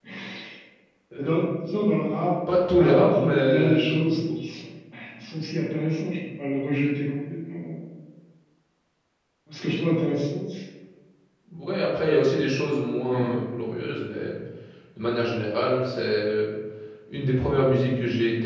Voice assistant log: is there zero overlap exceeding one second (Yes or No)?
No